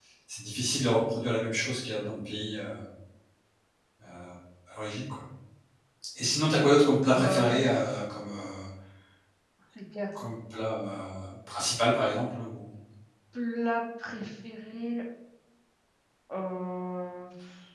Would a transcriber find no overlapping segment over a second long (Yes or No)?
Yes